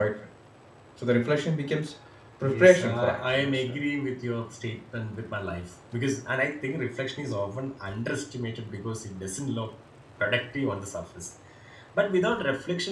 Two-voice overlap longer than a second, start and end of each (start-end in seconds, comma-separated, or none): 2.4-3.8